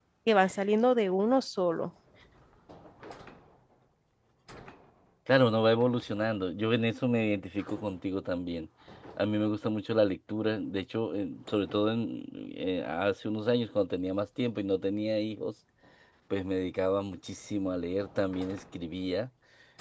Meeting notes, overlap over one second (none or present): none